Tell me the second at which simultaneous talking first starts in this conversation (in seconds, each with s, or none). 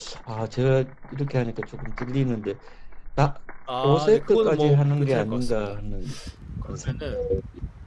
3.9 s